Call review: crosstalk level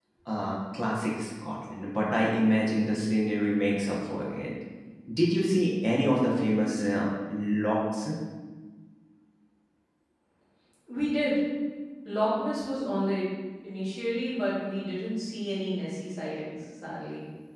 none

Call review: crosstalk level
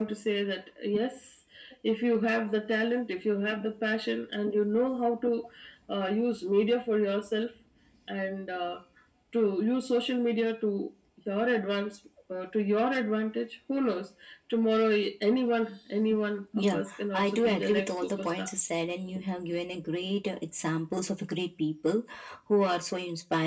present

